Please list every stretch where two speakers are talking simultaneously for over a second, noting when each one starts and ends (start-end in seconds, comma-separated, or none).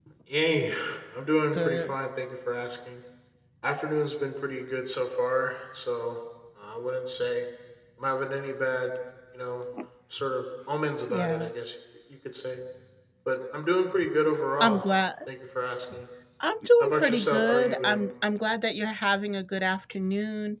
16.8-18.1